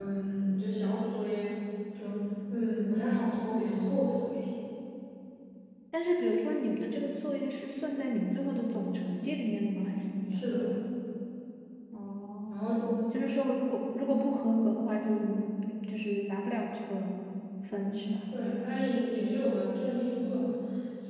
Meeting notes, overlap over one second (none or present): none